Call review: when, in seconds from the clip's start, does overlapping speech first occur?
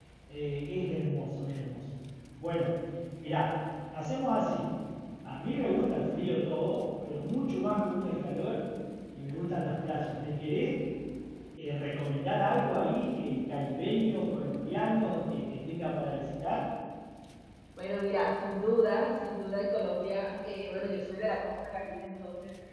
none

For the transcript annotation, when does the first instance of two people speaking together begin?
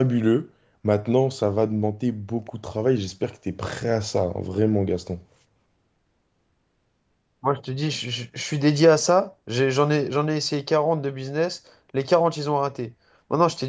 none

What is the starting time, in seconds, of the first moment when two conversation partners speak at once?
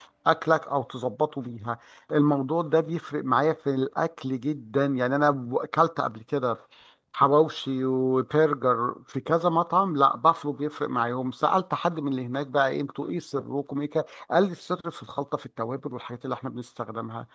none

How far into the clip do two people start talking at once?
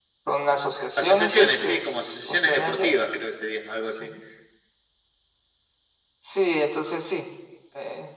1.0 s

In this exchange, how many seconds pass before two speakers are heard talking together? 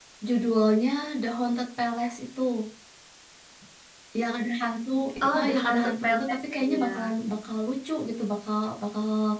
5.4 s

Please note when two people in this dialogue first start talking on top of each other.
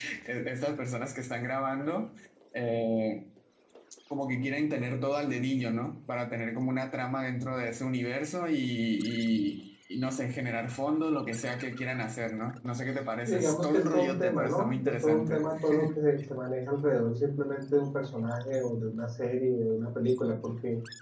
13.3 s

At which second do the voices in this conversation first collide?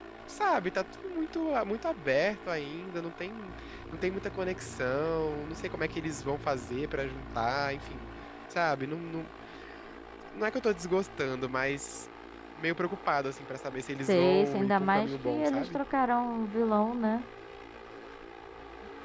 14.1 s

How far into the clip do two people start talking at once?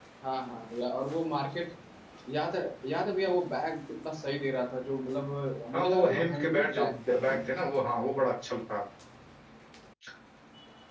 5.7 s

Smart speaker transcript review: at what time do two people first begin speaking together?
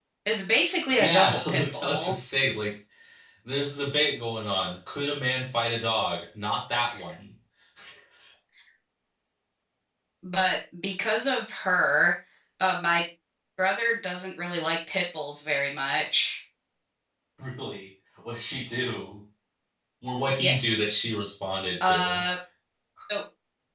0.9 s

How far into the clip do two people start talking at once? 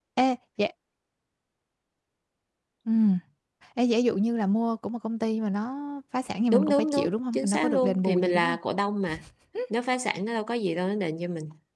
6.5 s

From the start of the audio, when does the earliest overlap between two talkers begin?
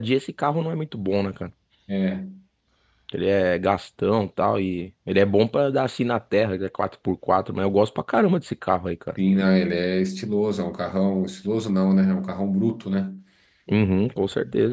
none

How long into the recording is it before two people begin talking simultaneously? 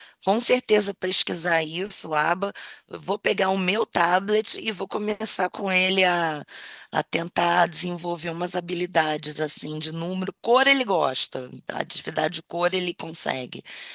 none

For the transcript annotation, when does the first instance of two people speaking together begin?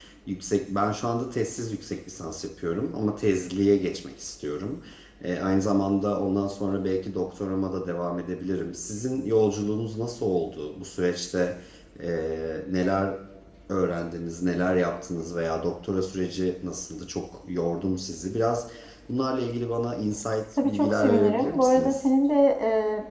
20.6 s

